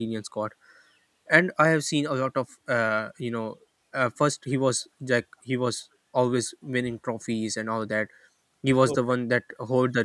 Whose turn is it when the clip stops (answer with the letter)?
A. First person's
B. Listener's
A